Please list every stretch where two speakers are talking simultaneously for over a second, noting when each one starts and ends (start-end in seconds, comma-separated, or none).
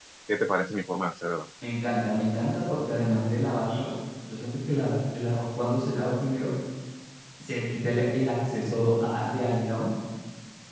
none